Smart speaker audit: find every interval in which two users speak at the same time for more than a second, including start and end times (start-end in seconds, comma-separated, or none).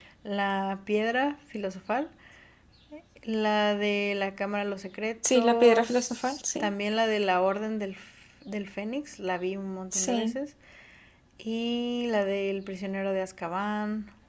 5.3-6.7